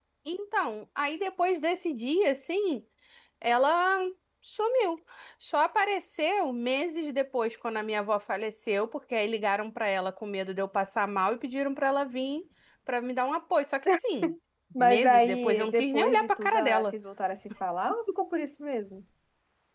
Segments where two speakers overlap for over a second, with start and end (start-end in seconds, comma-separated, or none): 14.8-16.9